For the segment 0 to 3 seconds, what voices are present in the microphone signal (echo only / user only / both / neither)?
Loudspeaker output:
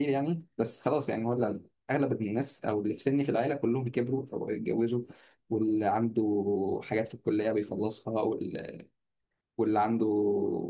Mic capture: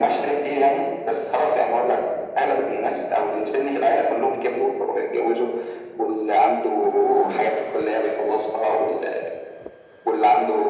echo only